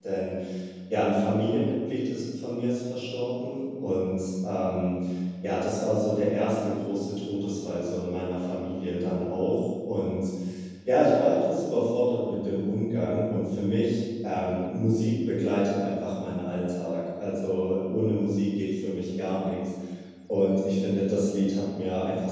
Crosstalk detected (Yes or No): No